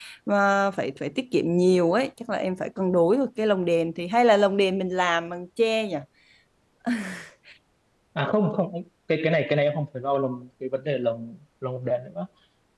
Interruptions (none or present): none